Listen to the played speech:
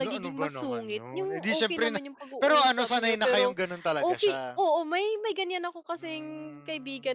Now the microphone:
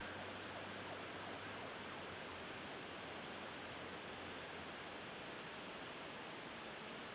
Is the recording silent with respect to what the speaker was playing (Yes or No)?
Yes